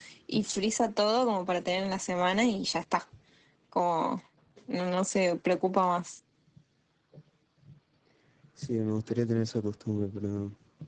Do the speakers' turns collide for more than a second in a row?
No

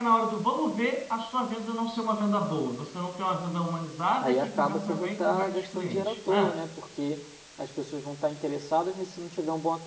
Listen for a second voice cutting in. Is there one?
Yes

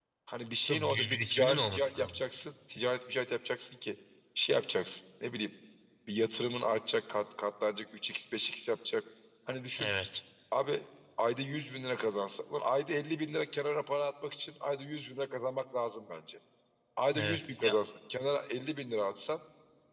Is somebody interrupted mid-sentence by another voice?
Yes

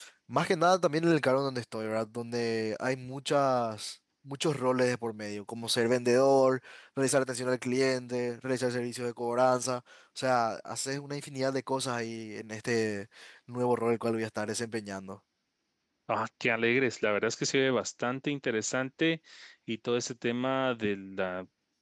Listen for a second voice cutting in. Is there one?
No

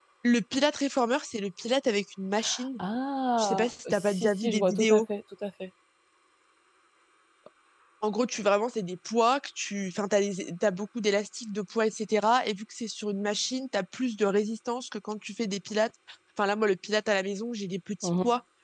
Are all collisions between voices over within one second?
No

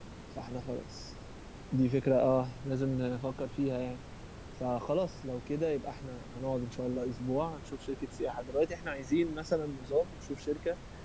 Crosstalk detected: No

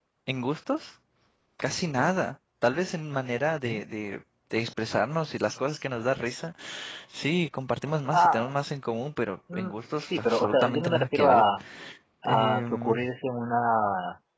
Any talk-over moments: Yes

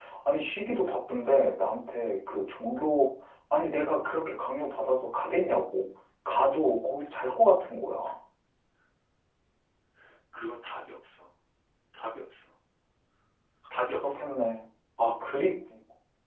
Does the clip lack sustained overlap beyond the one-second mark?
Yes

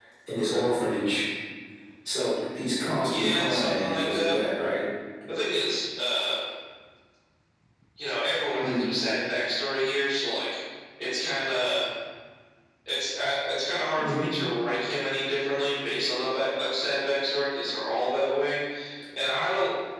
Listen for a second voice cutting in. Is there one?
Yes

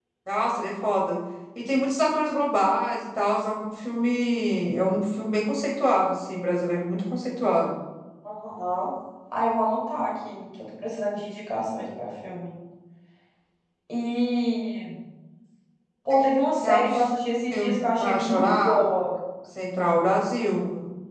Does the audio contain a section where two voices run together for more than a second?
Yes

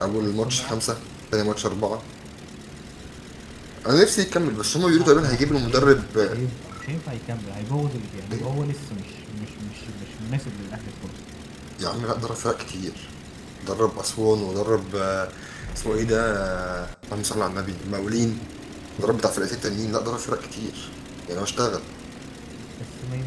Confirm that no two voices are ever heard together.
No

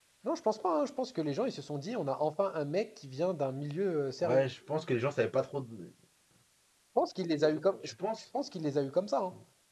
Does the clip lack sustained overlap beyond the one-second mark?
Yes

